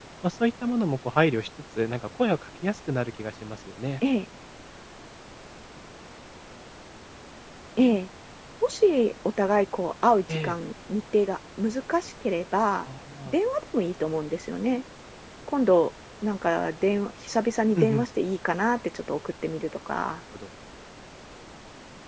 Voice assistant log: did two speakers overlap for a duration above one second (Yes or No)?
No